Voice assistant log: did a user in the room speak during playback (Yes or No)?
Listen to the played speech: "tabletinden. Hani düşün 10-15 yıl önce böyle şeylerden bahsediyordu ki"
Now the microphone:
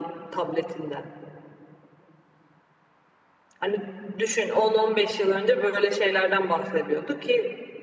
No